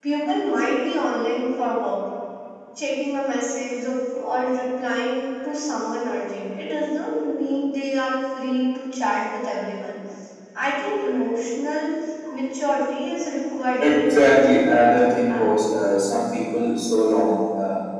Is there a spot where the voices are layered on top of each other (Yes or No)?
Yes